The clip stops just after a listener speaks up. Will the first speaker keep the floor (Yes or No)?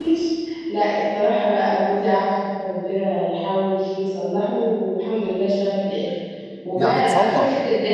Yes